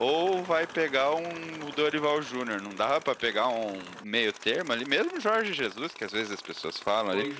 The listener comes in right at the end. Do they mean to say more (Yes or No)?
No